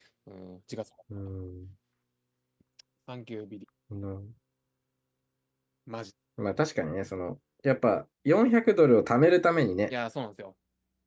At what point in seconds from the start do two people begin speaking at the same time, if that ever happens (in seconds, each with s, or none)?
none